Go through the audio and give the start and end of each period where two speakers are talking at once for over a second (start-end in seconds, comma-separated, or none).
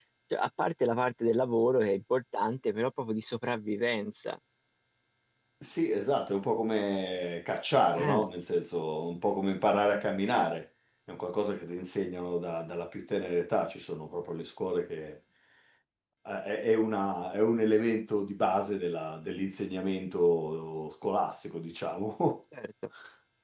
none